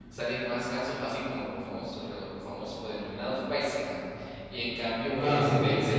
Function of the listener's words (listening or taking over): listening